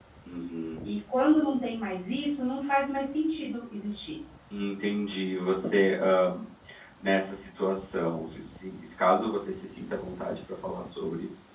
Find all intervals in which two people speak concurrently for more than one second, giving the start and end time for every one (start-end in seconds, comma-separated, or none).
none